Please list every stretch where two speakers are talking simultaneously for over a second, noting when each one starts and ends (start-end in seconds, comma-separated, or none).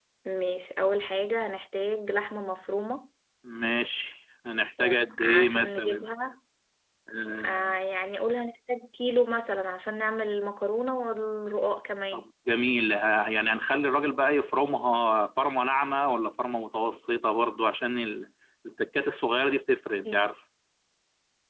4.8-6.0